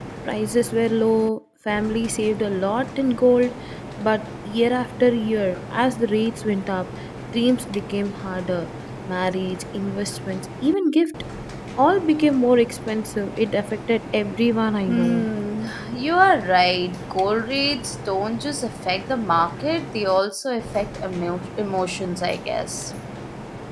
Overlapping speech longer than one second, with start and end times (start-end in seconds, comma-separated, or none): none